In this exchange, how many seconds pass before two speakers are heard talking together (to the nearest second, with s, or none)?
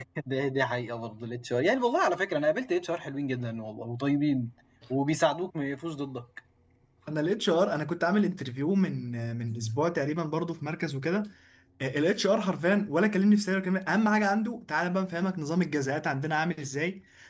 none